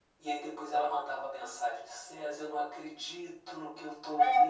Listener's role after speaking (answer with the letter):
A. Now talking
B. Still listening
B